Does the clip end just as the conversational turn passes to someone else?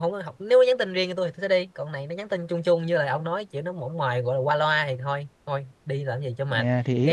Yes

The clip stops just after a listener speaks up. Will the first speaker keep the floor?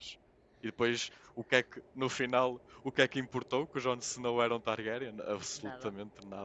No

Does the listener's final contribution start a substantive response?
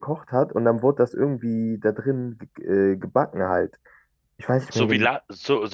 Yes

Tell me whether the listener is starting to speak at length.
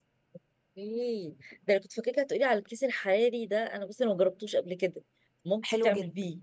Yes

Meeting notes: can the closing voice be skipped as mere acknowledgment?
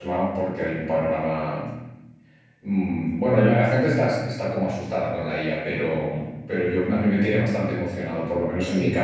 Yes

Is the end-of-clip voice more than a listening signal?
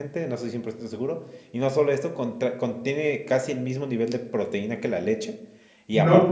No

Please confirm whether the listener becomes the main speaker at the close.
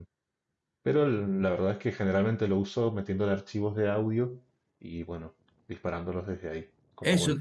Yes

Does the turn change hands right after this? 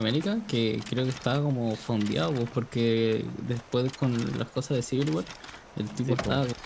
No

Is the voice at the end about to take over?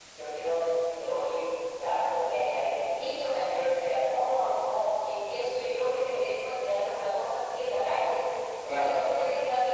No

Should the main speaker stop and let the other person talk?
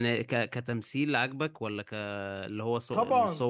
Yes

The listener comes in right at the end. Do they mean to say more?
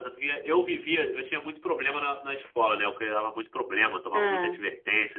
No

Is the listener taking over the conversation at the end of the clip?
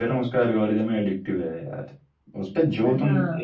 No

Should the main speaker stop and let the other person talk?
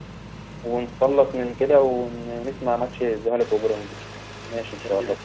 Yes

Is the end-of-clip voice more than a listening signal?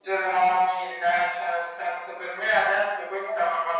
No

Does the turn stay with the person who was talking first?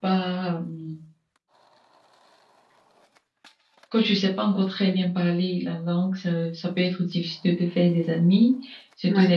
Yes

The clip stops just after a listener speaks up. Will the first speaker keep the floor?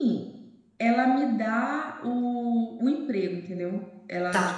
Yes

